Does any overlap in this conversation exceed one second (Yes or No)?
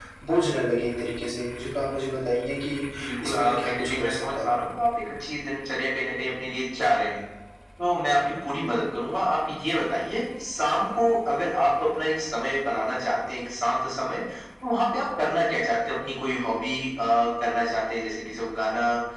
Yes